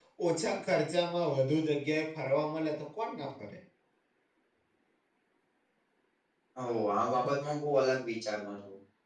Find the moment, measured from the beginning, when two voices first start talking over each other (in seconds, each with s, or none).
none